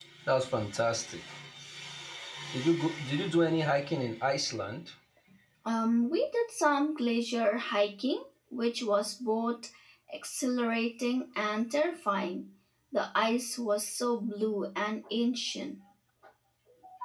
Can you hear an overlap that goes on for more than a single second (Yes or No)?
No